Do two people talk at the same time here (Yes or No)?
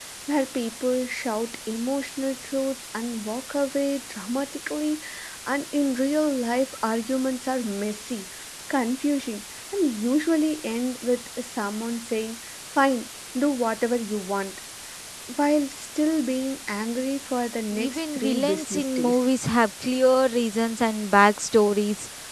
Yes